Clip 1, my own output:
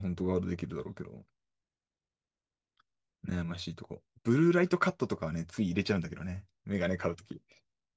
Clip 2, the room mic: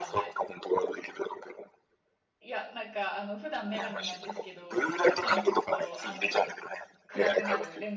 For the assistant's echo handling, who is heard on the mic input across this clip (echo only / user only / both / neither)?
both